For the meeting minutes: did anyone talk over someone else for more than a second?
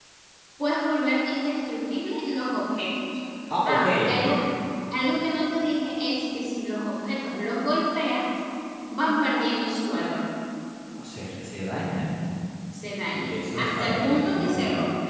Yes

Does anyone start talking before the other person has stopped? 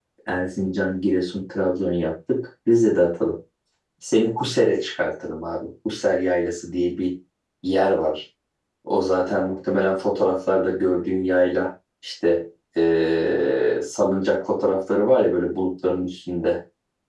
No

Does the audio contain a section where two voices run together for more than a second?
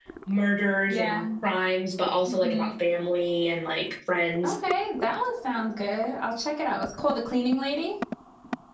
No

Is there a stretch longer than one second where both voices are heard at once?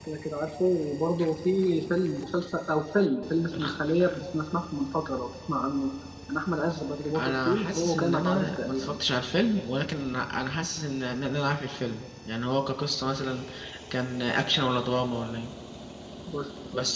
Yes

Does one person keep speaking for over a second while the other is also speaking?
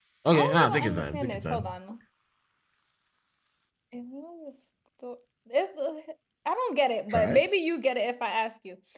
Yes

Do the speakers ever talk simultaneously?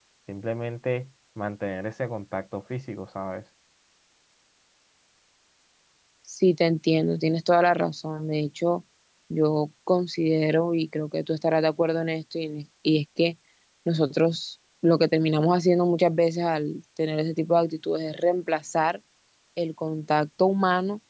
No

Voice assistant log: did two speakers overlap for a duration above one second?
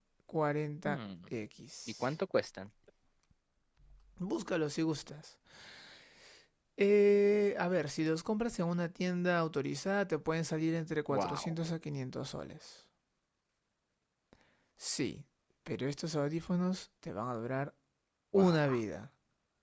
No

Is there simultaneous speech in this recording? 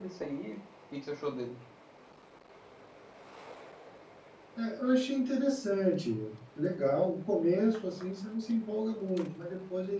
No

